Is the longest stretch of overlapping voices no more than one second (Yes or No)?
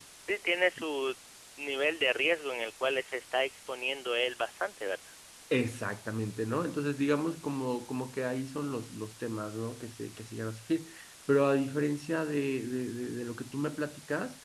Yes